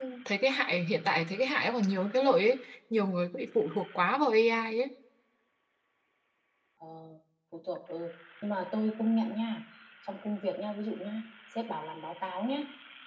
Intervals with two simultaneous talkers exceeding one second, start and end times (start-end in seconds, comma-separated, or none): none